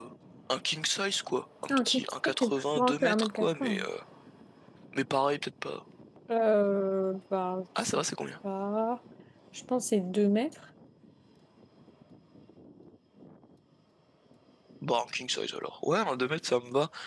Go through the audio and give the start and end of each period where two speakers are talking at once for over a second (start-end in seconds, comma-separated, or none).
2.4-3.9